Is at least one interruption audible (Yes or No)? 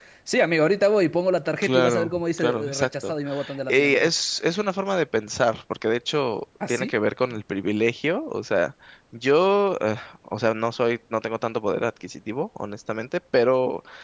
Yes